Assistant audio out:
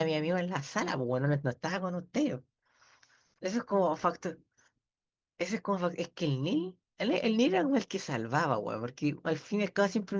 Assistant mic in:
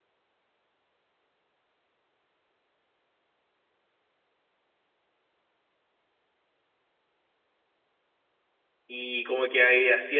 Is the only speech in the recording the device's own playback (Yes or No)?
No